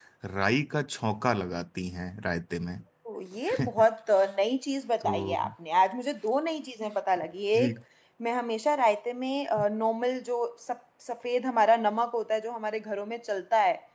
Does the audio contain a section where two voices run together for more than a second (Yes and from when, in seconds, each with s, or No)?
No